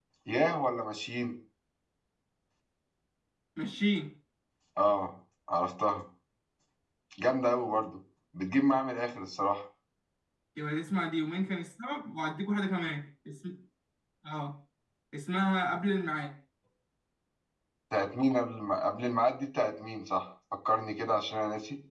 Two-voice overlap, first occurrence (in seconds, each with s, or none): none